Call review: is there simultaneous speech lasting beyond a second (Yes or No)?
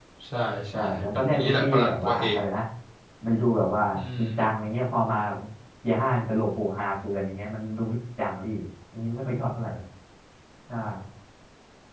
Yes